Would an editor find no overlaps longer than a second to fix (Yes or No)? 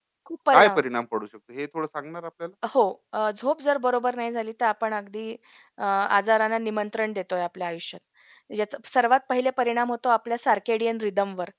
Yes